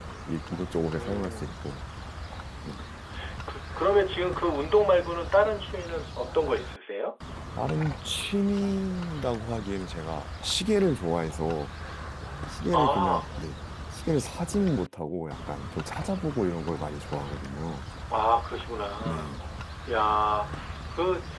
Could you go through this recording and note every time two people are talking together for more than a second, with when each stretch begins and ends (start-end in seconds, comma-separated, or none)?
none